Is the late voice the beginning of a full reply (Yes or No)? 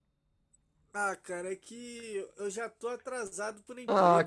Yes